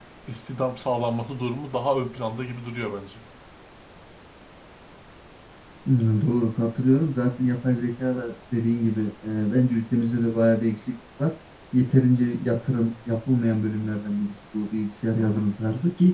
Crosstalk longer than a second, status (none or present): none